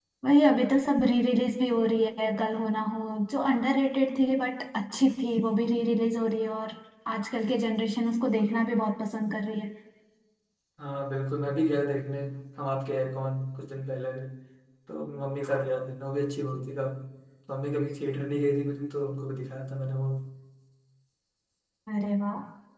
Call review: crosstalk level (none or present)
none